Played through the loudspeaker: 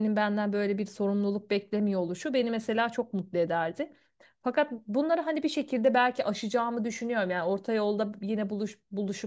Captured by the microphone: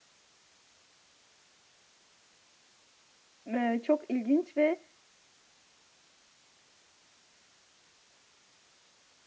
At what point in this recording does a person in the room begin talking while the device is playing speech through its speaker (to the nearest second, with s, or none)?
3 s